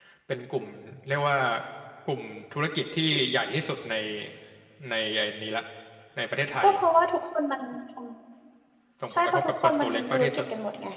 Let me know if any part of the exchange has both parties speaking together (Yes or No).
Yes